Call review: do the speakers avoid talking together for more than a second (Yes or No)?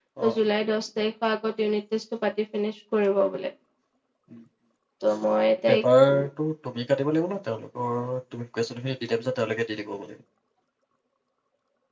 Yes